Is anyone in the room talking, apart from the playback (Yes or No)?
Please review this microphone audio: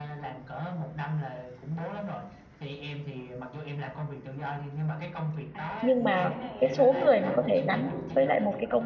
Yes